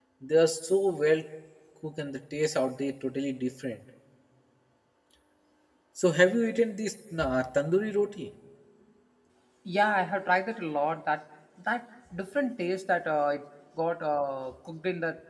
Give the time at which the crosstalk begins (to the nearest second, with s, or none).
none